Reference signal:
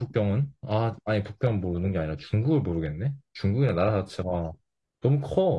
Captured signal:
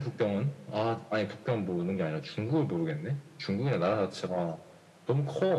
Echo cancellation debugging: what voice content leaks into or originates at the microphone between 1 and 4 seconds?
echo only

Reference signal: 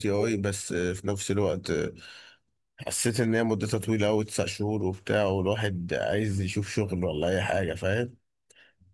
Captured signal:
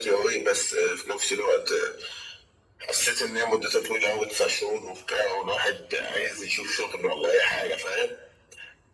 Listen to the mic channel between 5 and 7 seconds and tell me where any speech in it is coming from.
echo only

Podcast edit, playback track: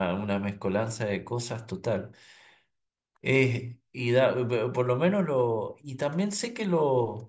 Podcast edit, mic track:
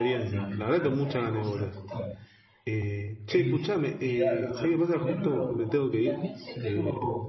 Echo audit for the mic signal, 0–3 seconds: both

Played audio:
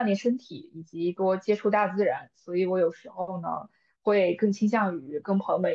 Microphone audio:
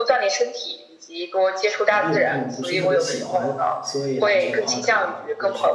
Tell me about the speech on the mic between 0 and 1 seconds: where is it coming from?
echo only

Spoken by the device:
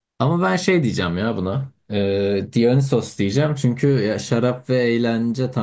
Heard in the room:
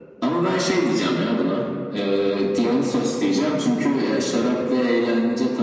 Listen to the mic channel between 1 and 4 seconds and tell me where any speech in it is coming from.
echo only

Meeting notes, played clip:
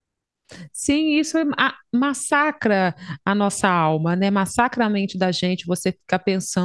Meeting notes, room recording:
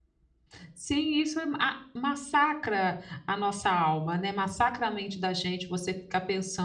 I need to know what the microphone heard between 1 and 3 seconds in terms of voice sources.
echo only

